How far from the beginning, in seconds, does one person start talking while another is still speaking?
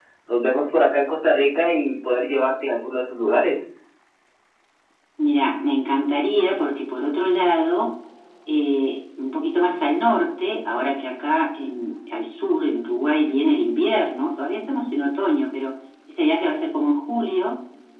none

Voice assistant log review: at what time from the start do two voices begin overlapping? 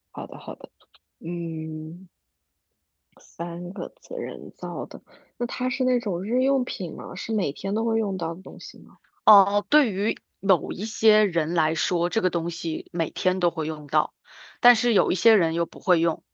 none

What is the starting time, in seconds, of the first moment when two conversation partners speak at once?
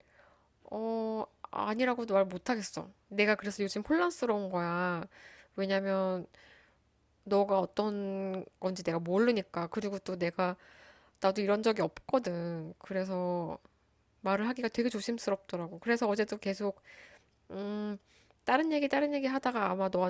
none

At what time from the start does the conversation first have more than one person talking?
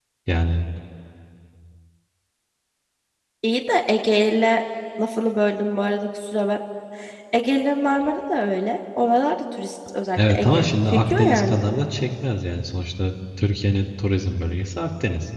10.2 s

